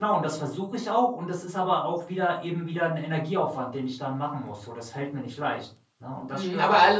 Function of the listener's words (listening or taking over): taking over